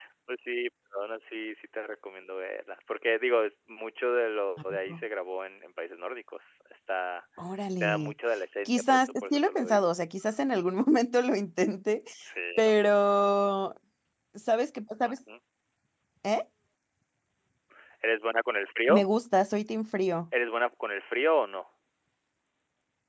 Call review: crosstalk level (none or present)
present